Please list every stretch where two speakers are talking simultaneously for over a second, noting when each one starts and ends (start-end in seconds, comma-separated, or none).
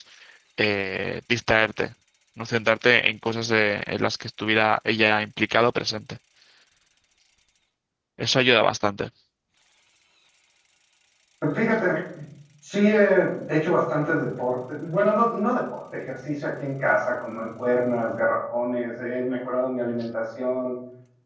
none